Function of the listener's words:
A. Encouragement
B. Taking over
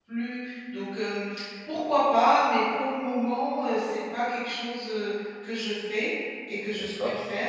A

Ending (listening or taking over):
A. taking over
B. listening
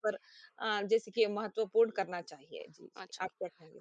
A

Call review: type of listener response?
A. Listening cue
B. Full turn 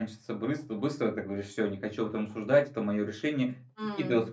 A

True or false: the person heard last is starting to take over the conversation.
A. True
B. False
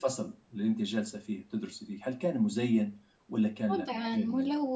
A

